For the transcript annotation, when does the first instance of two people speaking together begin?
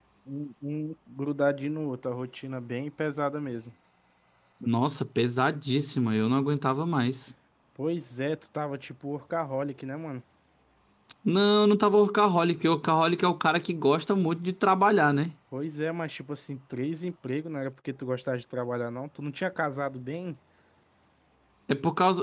none

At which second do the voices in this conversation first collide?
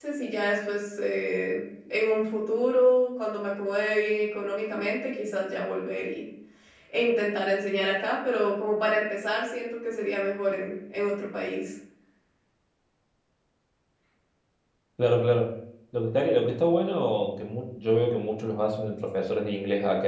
none

